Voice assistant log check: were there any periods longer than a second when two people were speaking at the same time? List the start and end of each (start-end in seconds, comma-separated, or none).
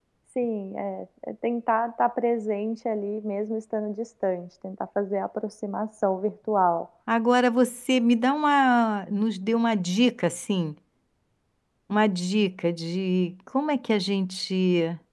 none